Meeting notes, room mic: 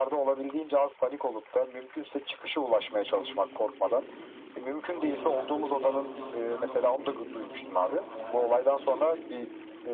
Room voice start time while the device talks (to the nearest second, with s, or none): 3 s